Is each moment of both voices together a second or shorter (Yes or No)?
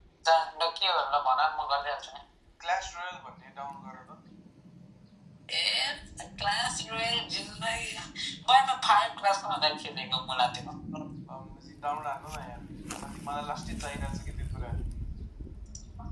Yes